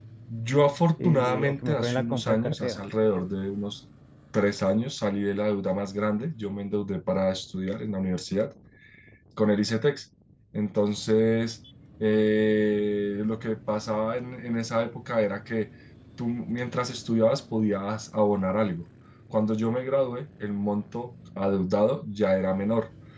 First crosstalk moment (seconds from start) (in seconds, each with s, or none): 1.0 s